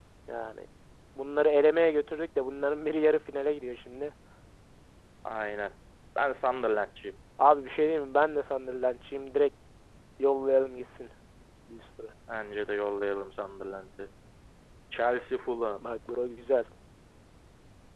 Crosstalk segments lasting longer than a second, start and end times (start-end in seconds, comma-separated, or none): none